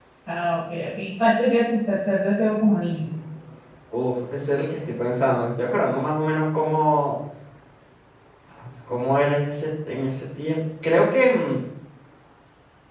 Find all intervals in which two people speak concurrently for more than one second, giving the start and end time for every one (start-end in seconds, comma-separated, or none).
none